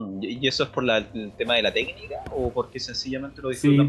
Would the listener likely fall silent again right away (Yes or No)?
No